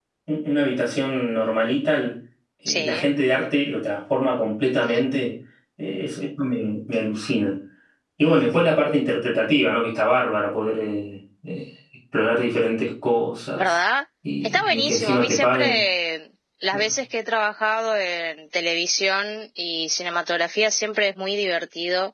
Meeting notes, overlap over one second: present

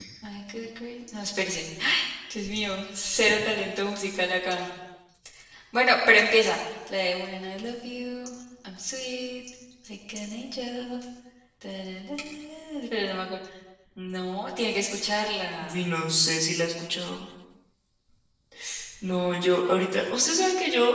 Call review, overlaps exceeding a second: none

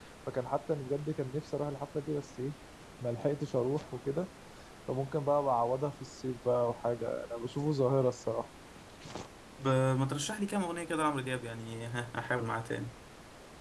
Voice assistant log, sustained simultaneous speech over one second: none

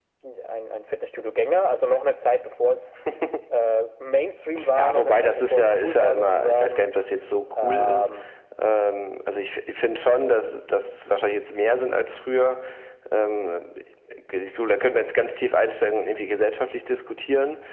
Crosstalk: present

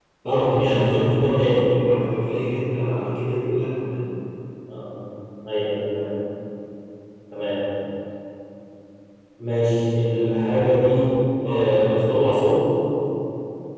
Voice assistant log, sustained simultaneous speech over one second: present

